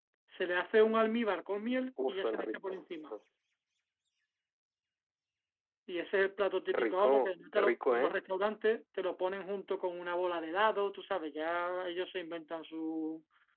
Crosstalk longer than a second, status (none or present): present